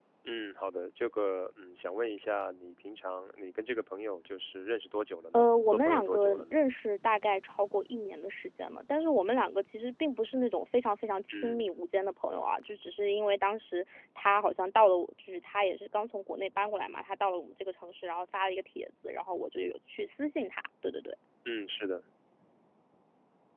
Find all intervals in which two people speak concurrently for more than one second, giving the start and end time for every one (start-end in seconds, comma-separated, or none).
5.3-6.6